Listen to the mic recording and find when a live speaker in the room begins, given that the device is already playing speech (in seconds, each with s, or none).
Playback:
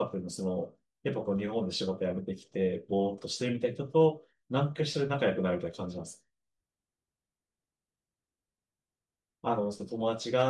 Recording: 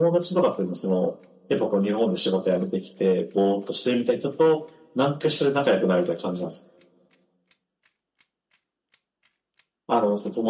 none